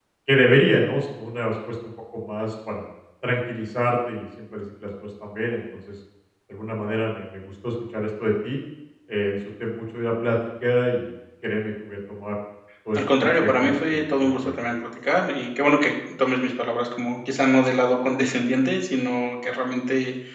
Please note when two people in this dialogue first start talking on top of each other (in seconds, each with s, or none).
12.9 s